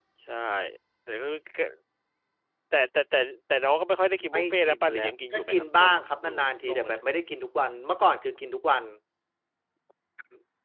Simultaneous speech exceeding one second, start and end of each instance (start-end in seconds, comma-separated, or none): 4.3-7.0